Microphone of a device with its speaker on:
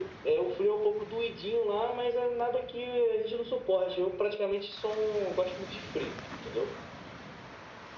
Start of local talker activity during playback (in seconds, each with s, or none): none